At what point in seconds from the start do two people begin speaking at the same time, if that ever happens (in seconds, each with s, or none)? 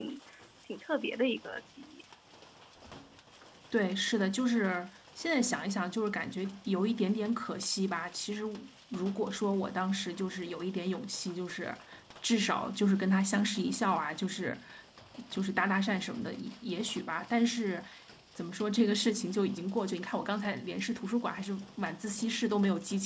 none